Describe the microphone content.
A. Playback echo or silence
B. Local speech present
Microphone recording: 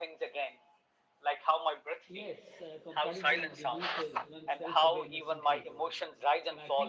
B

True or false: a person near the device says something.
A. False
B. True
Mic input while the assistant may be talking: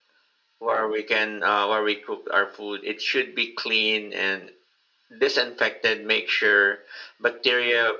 A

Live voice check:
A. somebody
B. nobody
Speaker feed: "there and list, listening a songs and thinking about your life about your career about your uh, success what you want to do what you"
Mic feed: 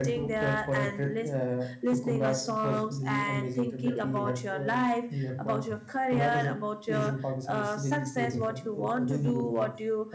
A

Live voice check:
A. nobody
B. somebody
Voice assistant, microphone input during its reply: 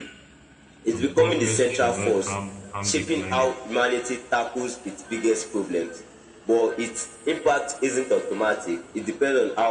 B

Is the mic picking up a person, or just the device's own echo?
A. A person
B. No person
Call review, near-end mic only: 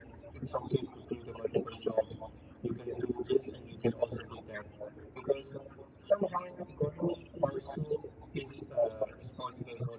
B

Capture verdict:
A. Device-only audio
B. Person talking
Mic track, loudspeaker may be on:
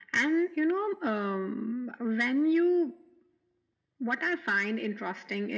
A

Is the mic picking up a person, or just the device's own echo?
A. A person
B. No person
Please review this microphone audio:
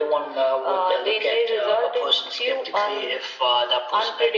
B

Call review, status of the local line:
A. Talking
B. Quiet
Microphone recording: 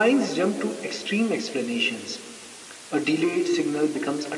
B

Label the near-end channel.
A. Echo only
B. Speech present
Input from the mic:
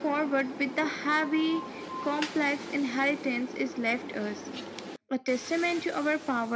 A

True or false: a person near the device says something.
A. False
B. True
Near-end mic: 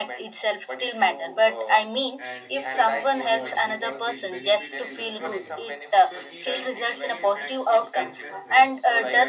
B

